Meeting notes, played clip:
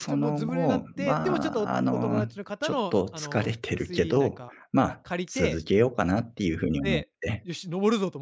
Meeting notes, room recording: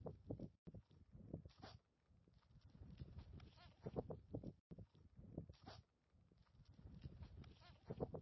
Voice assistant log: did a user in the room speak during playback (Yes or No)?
No